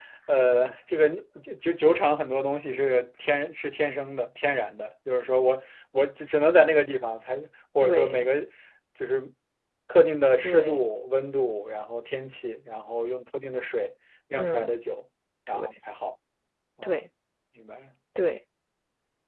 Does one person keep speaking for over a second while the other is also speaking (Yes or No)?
No